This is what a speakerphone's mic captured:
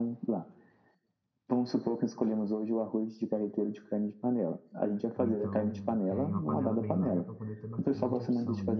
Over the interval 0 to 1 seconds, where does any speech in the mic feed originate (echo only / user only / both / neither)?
echo only